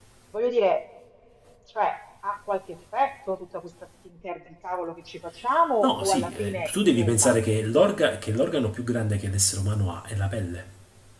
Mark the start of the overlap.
5.8 s

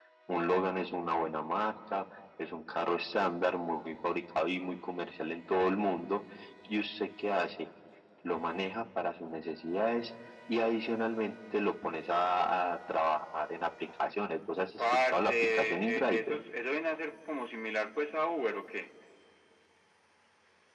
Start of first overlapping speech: 14.8 s

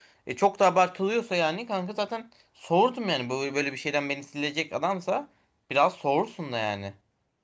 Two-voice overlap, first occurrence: none

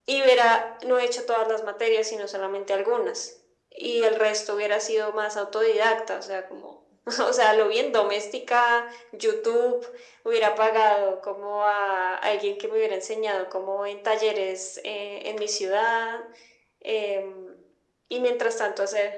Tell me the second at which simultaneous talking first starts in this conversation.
none

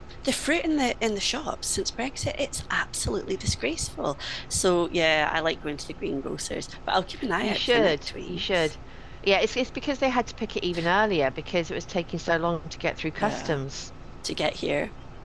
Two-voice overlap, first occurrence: 7.4 s

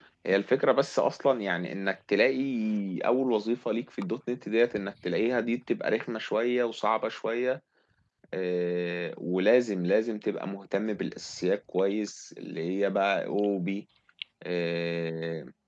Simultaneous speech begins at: none

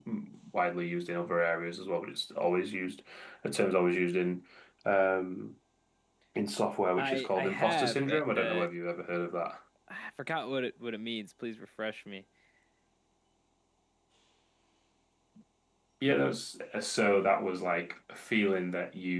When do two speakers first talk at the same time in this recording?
7.0 s

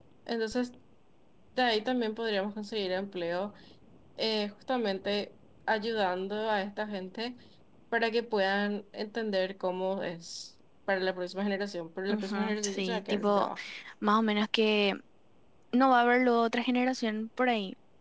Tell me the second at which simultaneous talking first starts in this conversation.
12.1 s

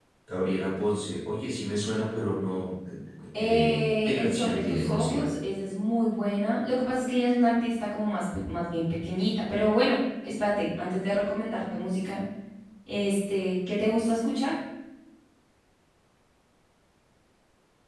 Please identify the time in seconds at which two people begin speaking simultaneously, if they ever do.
3.4 s

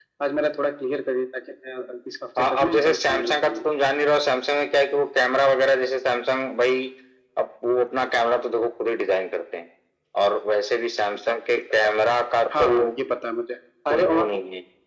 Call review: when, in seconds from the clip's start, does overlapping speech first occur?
2.4 s

